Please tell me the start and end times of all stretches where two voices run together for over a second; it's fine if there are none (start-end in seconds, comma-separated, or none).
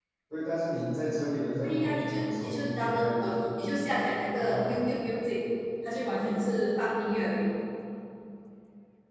1.6-3.4